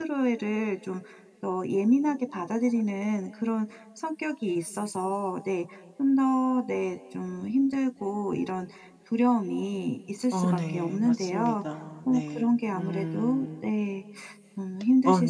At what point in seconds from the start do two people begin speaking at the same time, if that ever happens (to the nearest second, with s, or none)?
10 s